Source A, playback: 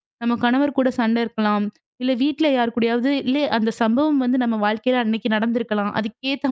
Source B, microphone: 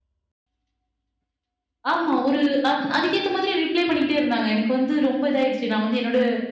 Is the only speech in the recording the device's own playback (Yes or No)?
No